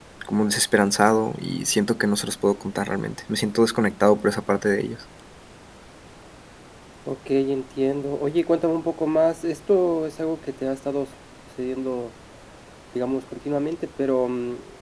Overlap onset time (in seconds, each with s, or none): none